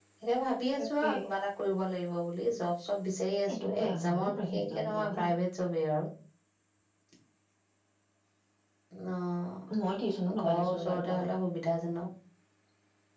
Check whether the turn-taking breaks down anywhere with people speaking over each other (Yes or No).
Yes